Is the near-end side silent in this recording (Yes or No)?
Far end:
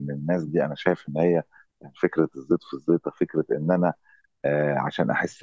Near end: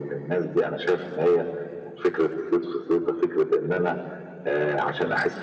Yes